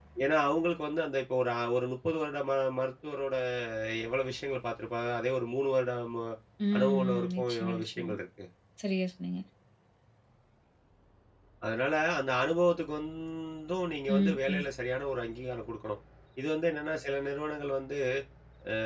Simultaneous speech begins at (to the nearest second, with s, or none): 7 s